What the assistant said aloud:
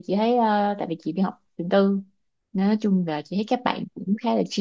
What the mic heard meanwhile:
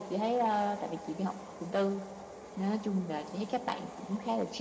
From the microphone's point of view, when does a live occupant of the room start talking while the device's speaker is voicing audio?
none

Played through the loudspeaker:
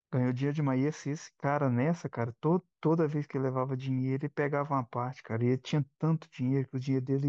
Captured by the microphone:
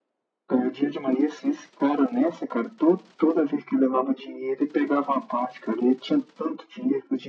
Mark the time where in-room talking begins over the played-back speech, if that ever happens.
none

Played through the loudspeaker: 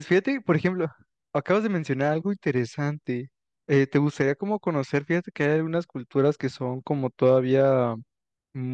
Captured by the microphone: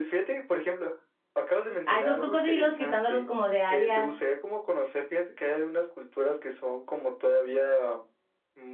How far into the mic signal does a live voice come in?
2 s

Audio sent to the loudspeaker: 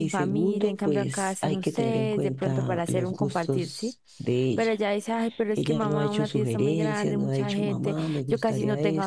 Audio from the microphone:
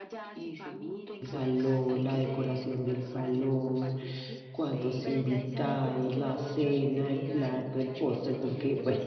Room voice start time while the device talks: 1 s

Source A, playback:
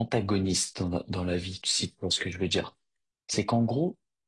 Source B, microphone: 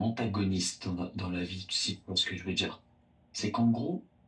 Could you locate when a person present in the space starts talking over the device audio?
none

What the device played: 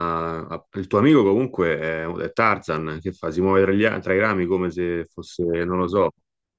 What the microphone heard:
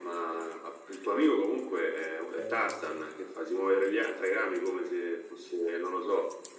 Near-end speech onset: 2 s

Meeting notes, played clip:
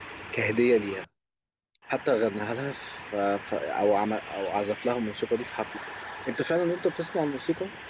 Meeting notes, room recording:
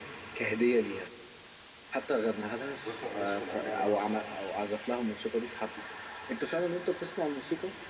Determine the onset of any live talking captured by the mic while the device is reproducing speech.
3 s

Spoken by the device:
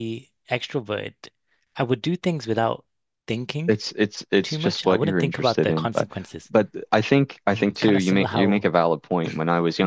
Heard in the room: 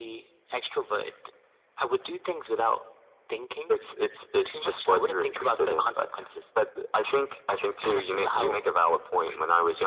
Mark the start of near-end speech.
none

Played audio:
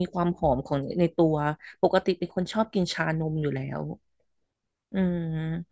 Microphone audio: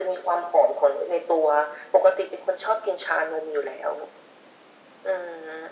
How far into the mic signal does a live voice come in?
none

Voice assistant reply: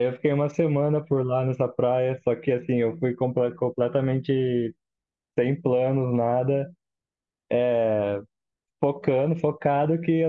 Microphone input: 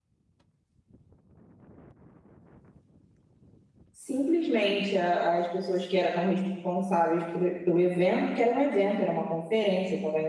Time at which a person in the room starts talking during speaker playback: 4 s

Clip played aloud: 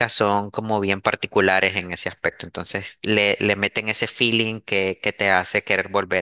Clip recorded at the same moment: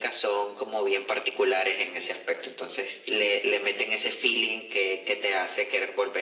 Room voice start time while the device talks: none

